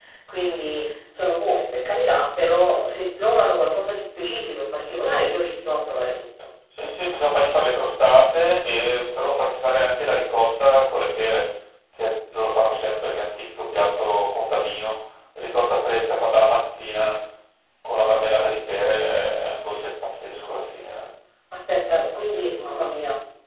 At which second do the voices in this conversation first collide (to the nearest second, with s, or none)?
none